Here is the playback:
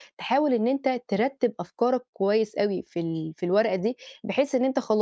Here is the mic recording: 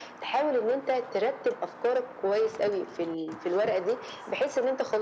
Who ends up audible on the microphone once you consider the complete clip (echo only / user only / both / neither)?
echo only